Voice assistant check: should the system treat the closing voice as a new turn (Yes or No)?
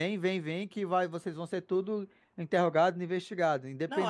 Yes